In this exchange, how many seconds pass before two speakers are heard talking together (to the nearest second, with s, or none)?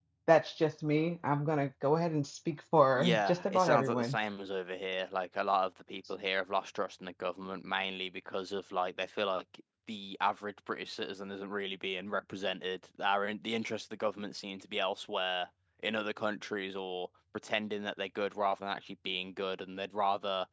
3 s